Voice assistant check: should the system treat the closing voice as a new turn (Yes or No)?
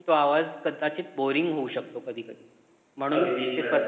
No